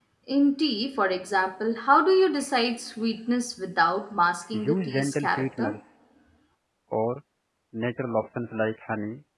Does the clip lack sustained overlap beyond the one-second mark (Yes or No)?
No